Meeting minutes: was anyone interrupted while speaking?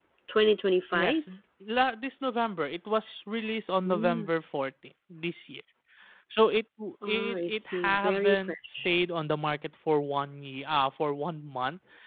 Yes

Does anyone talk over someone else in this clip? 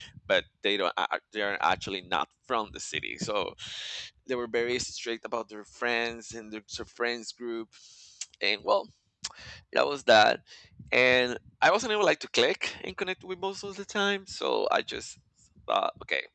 No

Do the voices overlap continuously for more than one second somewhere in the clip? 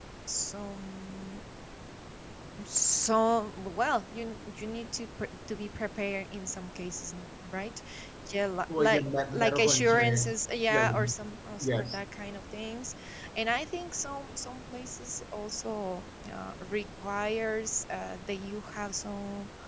Yes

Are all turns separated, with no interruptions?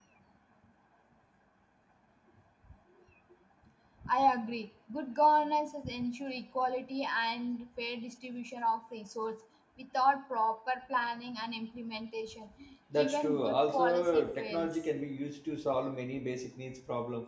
No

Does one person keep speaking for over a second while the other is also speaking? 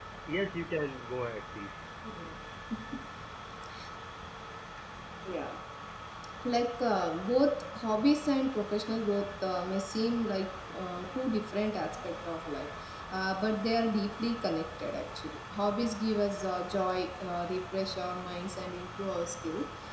No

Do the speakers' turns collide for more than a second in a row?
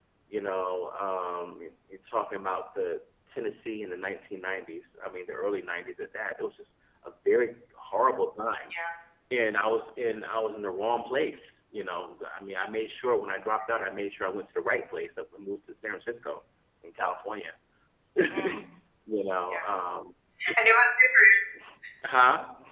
No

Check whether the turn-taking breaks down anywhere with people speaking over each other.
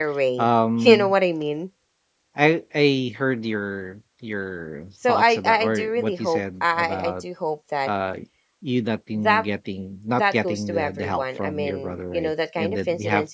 Yes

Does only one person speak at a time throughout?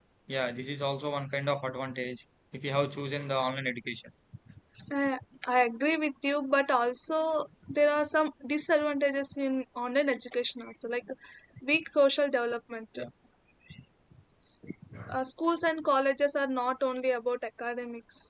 Yes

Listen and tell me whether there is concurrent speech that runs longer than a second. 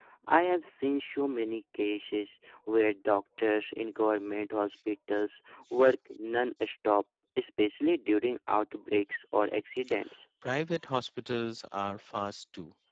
No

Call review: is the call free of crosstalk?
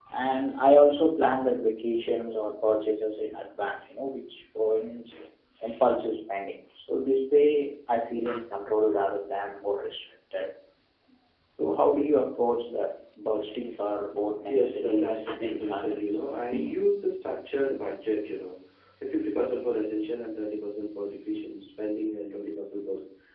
No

